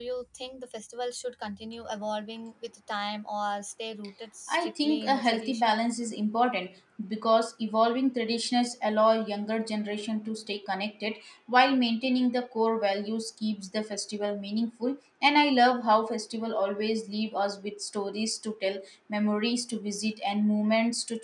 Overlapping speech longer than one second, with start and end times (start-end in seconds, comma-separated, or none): 4.5-5.7